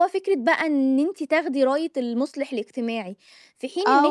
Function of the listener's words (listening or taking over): taking over